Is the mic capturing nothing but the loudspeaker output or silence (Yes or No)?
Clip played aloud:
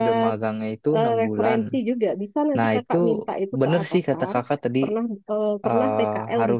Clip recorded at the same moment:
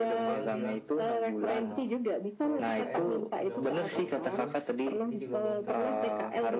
No